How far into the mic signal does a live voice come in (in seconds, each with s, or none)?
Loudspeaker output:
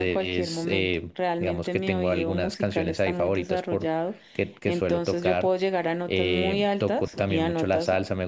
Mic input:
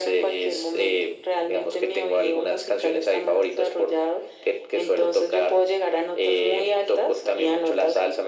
none